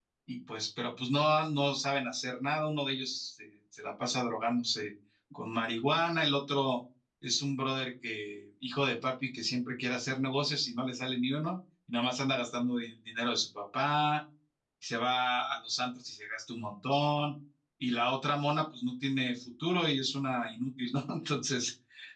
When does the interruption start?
none

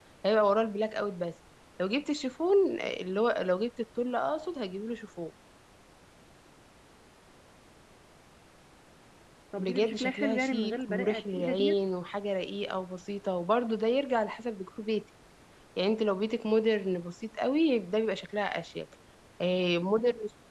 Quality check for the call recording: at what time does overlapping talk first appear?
9.6 s

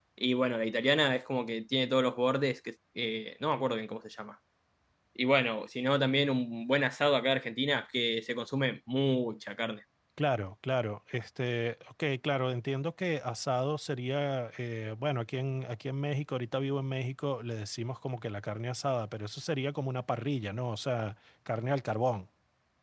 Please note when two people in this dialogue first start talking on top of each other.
none

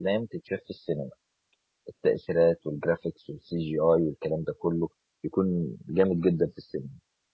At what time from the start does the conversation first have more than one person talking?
none

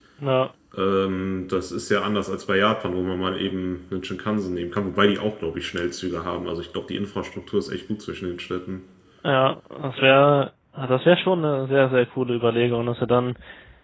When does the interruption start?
none

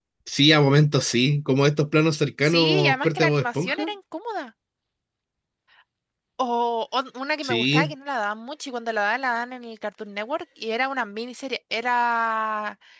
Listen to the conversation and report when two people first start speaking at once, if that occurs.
2.4 s

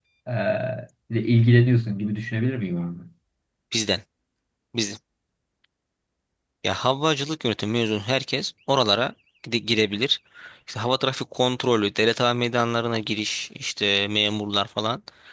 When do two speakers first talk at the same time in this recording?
none

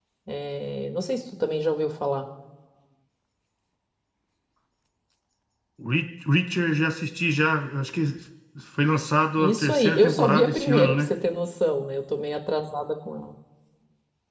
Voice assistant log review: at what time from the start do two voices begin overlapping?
9.4 s

